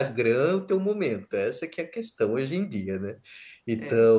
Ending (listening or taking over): listening